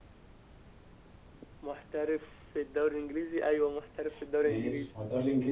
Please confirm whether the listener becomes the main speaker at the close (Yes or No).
Yes